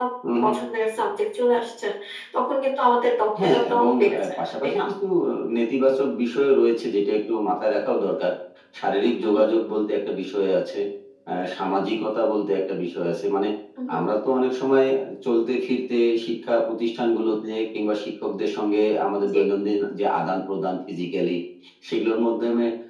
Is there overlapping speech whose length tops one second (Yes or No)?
Yes